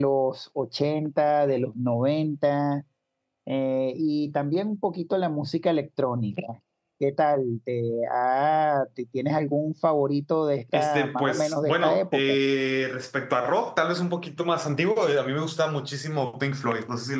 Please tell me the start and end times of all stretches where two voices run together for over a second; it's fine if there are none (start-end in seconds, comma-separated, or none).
10.7-12.3